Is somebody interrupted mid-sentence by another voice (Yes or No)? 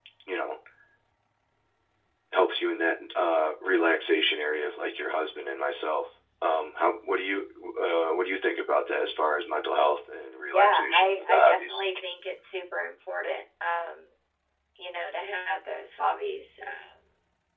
Yes